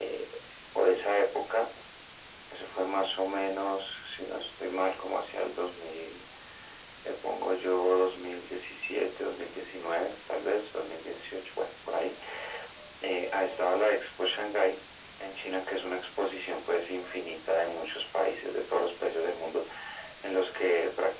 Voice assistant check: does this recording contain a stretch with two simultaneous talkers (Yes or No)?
No